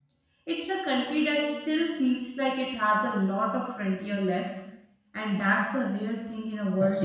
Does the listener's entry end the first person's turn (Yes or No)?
Yes